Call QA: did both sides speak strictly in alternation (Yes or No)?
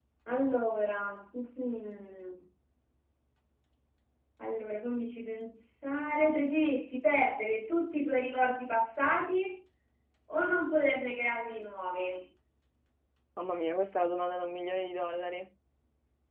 Yes